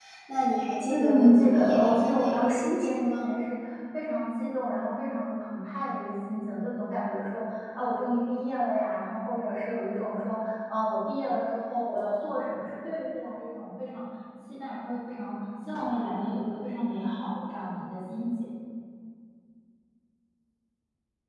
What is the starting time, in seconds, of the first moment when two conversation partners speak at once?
0.9 s

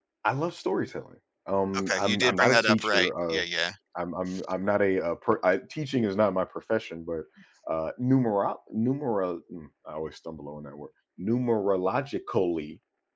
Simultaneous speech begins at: 1.7 s

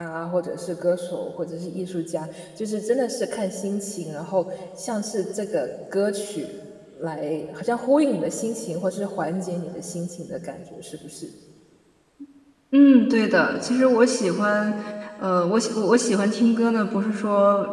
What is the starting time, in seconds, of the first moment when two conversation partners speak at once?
none

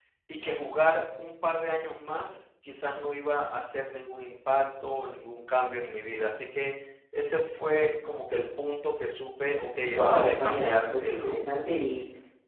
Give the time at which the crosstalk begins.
9.9 s

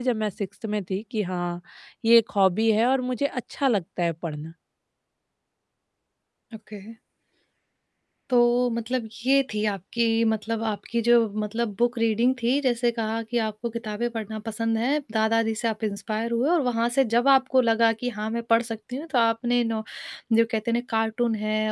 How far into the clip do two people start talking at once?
none

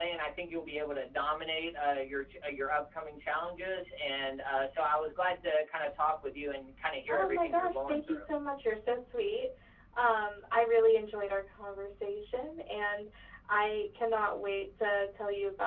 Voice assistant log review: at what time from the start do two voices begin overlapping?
7.1 s

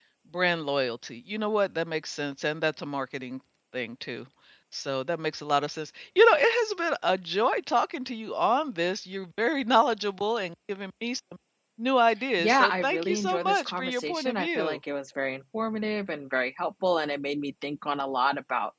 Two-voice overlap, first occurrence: 12.4 s

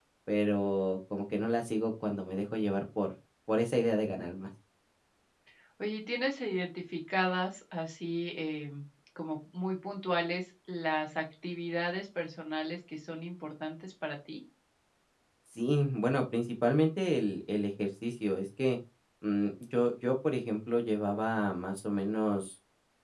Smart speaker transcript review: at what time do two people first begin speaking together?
none

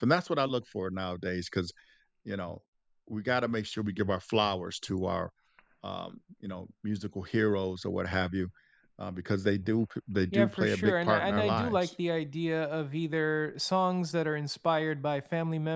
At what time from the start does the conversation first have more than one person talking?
10.3 s

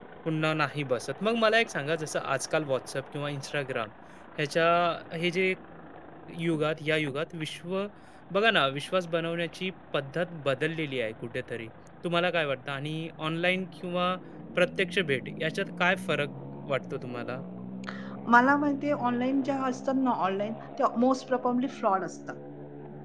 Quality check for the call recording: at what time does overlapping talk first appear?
none

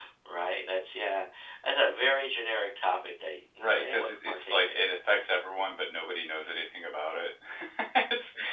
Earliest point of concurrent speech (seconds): 3.6 s

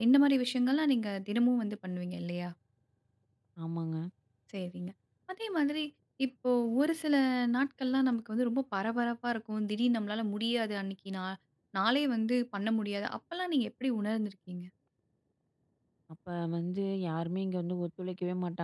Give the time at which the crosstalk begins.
none

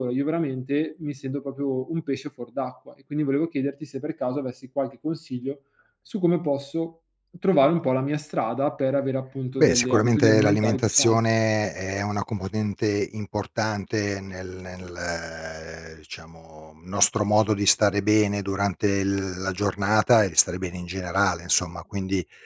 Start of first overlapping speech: 9.6 s

